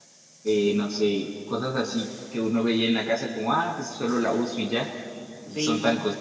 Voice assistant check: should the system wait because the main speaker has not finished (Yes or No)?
Yes